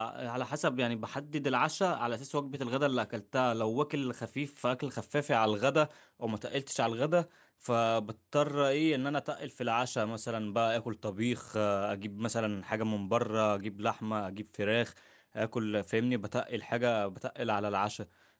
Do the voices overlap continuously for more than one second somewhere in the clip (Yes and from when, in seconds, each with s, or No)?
No